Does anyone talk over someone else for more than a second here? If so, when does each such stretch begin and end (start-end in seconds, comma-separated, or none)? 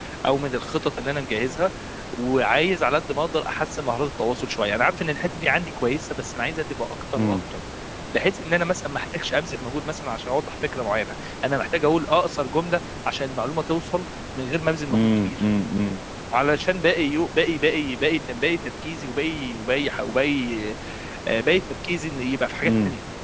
none